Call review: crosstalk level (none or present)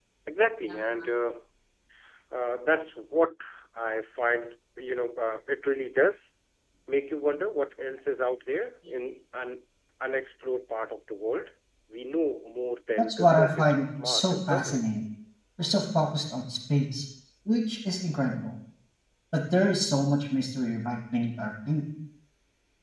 present